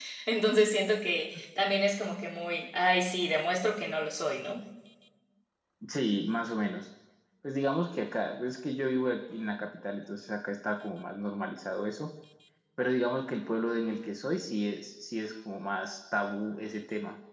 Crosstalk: none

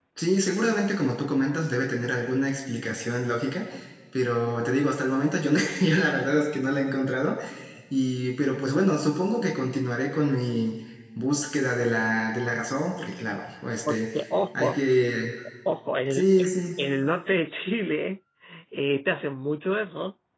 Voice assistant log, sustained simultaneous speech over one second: none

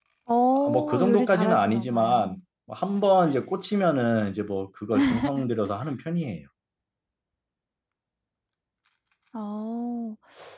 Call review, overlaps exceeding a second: present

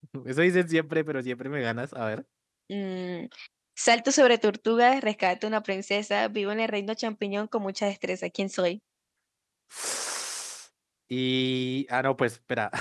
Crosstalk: none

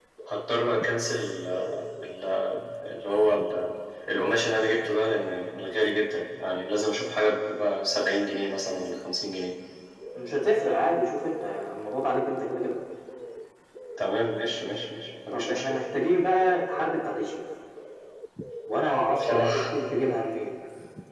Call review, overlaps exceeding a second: none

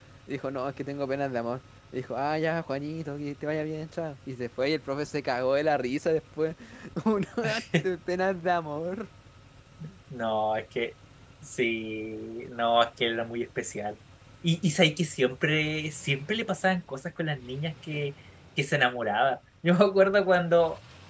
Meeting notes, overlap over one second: none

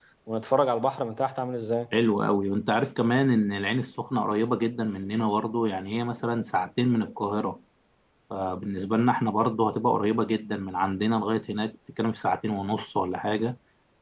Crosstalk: none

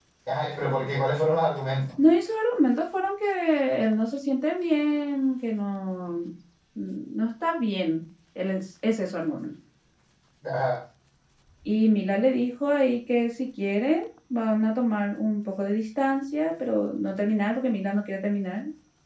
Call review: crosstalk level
none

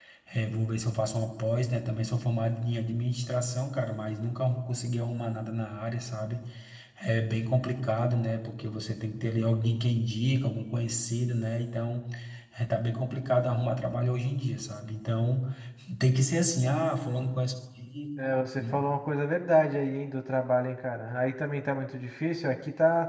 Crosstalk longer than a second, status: none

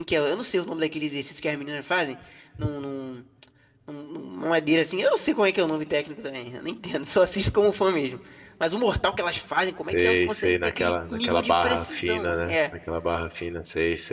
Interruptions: present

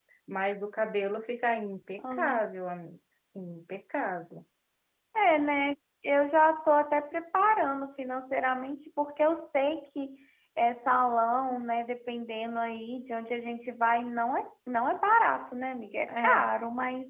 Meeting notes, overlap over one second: none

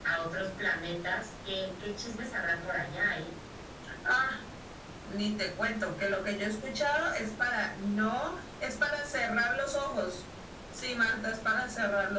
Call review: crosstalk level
none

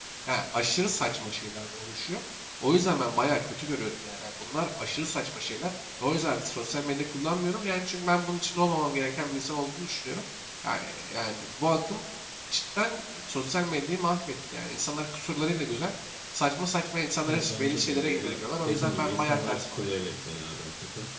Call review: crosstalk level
present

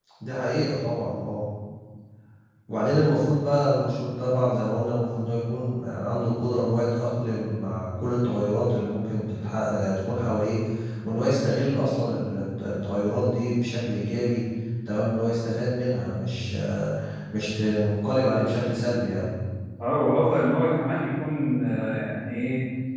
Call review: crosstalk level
none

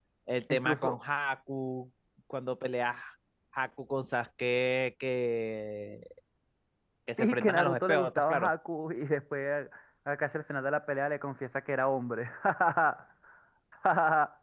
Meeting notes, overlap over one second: present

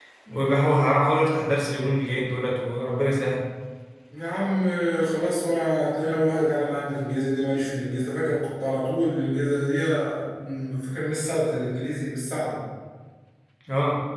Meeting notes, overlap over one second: none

